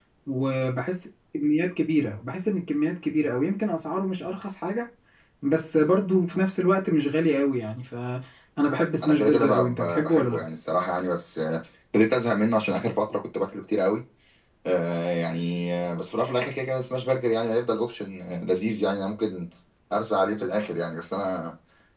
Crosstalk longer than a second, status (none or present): present